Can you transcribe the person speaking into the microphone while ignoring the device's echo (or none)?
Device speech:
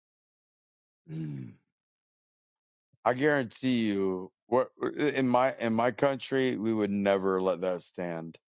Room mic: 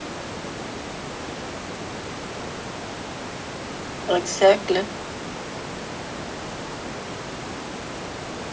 Exactly.